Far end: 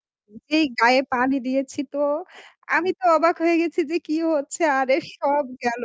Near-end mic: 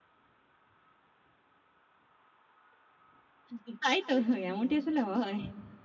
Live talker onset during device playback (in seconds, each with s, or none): 3.5 s